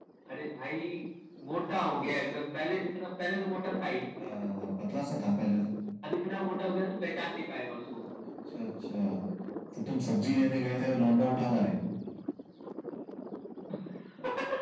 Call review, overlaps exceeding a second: none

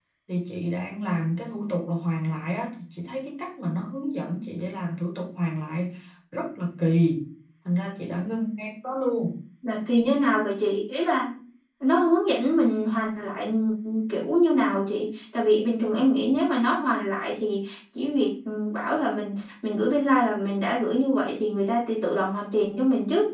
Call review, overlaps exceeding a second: none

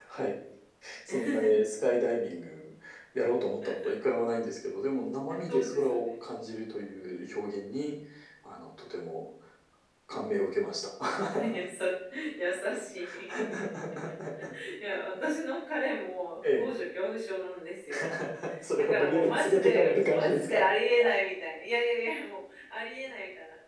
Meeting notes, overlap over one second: present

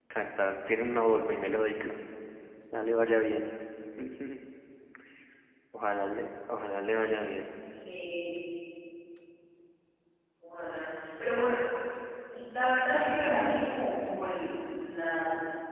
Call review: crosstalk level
none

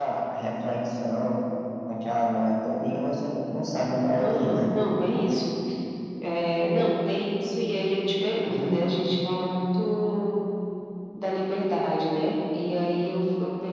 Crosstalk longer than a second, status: none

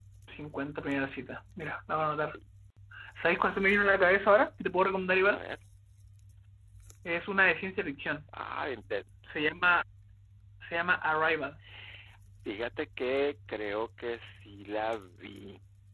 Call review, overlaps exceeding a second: none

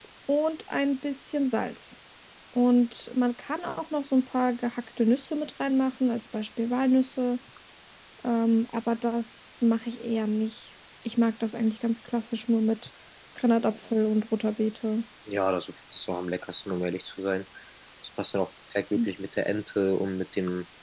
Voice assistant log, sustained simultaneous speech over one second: none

